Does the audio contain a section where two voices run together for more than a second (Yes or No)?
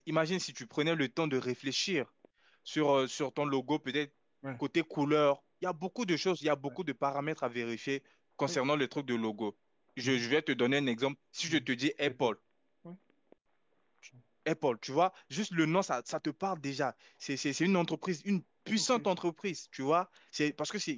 No